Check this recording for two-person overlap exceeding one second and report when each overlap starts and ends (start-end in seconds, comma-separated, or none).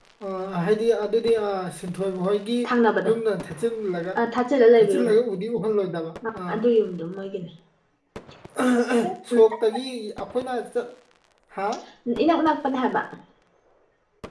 none